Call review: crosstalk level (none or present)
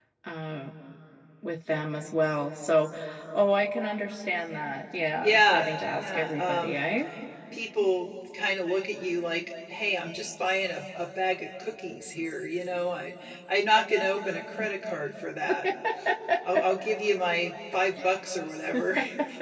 present